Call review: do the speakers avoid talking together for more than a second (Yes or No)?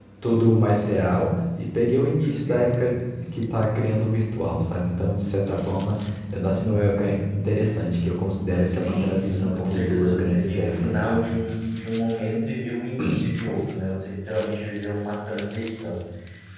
No